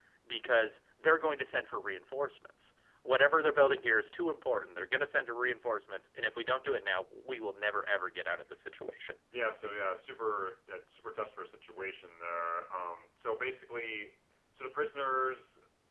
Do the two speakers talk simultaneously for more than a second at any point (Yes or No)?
No